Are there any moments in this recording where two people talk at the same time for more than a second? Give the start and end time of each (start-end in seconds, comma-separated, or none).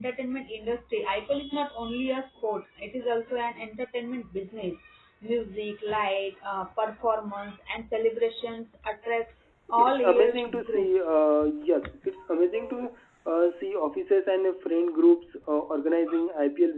9.8-11.3